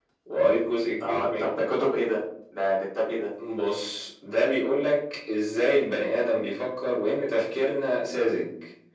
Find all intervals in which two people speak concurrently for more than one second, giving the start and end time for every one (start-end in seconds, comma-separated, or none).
none